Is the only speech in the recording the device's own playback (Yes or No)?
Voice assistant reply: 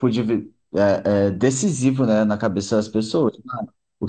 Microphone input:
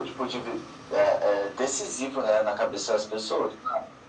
Yes